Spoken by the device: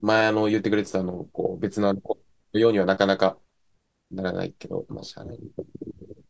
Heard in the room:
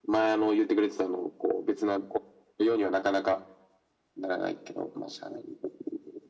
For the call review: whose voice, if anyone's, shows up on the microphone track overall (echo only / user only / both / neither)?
echo only